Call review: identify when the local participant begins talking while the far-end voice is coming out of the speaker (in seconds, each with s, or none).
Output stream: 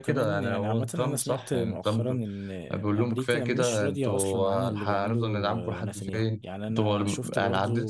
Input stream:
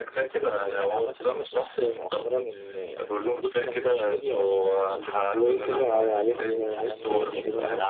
5.3 s